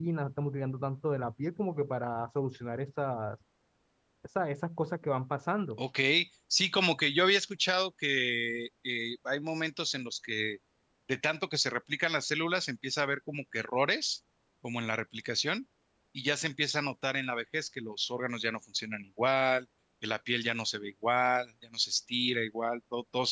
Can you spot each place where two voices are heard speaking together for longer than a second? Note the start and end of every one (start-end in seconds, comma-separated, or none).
none